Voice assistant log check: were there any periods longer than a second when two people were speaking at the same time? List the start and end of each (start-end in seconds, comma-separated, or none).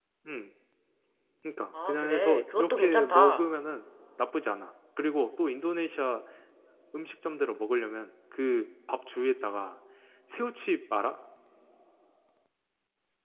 1.9-3.5